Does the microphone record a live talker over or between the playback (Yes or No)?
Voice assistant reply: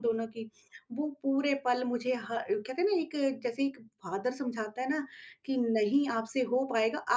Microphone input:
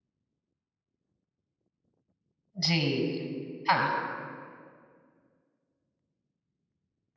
Yes